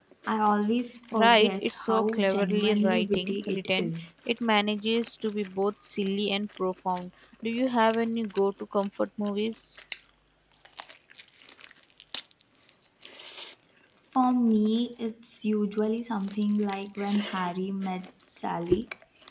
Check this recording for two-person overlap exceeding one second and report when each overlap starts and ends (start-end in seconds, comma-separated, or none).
1.1-3.9